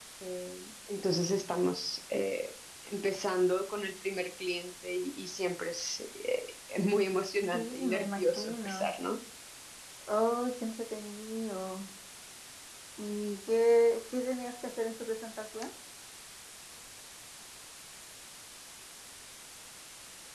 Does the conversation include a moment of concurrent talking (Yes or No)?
Yes